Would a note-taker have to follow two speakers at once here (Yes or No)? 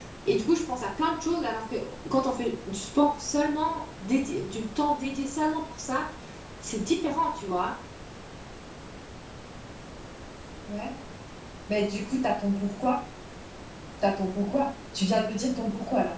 No